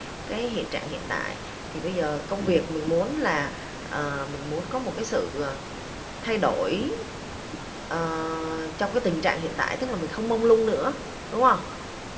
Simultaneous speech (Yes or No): No